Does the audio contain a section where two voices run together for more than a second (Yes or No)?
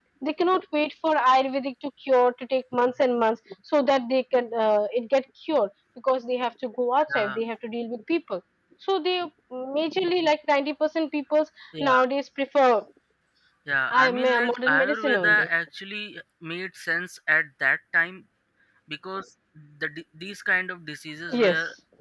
Yes